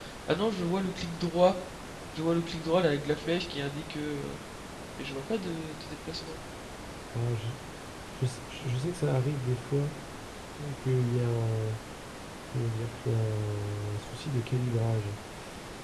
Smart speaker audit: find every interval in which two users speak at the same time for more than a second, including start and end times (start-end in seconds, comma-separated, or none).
none